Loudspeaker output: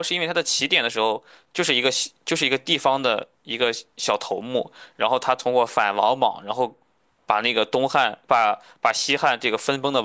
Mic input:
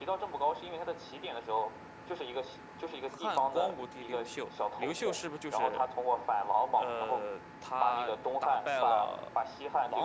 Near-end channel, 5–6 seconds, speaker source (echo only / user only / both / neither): both